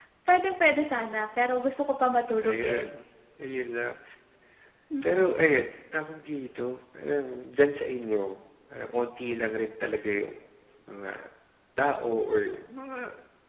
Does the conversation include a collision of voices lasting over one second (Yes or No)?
No